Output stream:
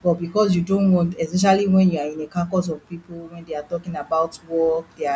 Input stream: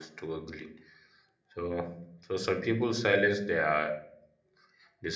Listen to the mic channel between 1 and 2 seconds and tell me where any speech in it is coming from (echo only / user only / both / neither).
user only